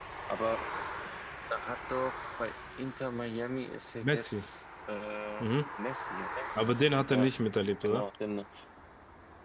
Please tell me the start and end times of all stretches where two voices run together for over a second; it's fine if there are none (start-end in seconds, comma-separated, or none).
none